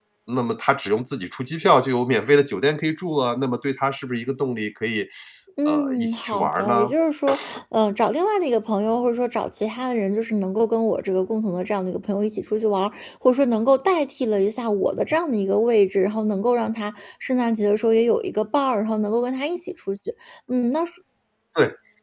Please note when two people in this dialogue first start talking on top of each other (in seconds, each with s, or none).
5.7 s